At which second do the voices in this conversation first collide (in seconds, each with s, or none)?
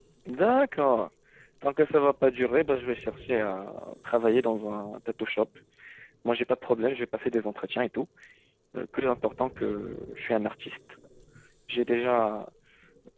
none